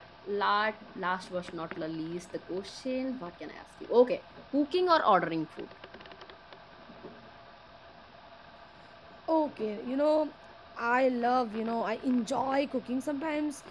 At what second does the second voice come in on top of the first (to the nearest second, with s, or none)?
none